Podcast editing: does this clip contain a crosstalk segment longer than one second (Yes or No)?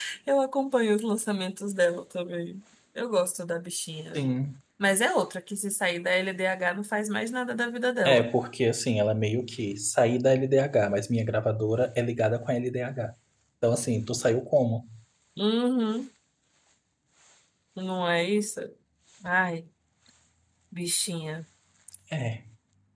No